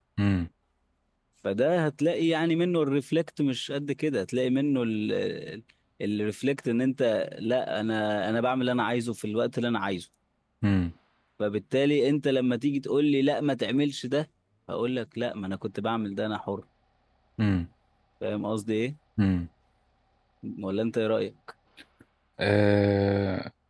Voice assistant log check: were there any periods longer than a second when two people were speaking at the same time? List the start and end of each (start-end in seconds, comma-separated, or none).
none